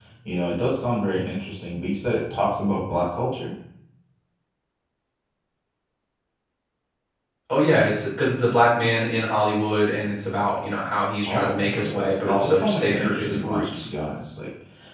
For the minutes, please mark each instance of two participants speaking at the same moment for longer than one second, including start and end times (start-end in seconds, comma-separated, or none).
11.3-13.9